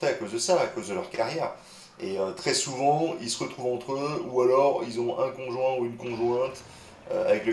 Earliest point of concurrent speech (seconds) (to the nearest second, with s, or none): none